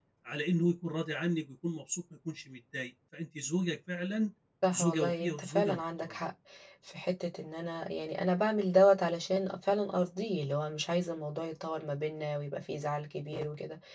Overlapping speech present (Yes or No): Yes